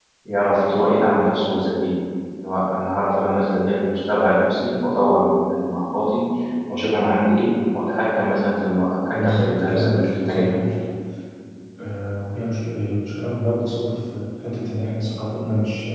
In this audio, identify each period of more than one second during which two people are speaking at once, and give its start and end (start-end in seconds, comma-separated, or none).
9.1-10.6